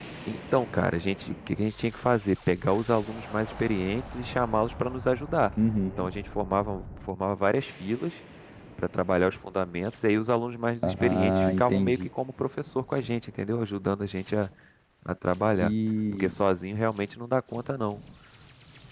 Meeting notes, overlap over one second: present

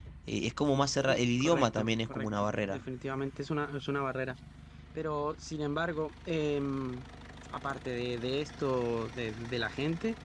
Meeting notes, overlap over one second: present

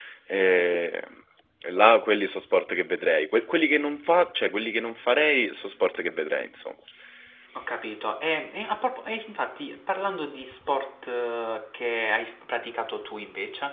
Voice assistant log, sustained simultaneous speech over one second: none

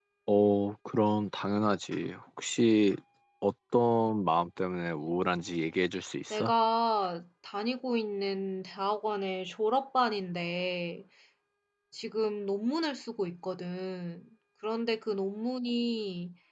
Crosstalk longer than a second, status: none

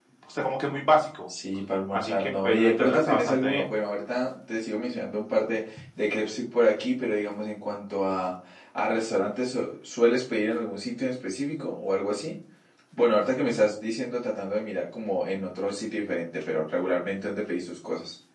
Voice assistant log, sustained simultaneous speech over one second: present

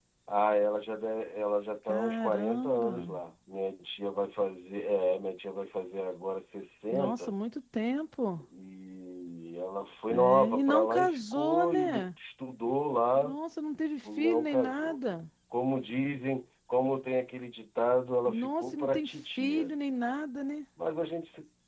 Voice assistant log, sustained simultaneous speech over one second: present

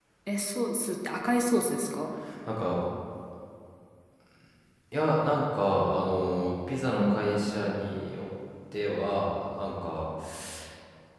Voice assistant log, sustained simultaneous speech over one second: none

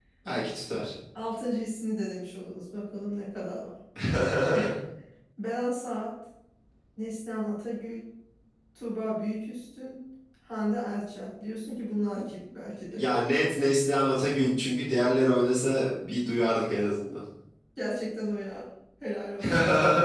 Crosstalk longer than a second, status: none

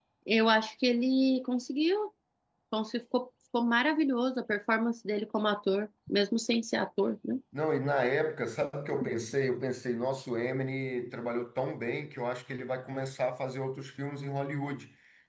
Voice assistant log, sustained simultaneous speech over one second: none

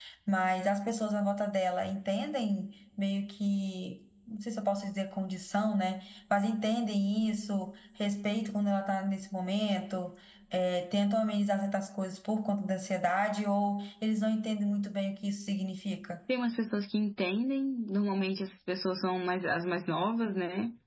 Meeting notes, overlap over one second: none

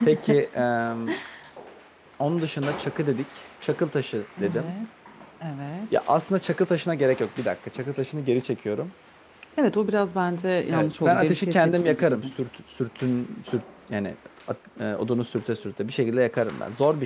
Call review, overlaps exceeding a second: present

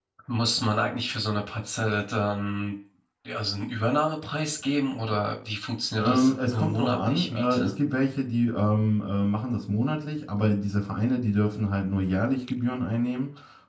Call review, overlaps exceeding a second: present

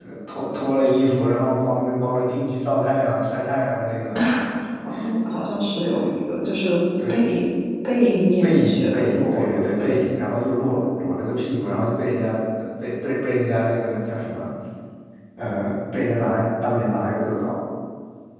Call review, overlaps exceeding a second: present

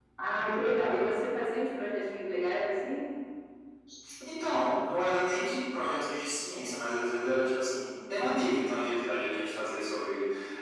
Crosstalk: none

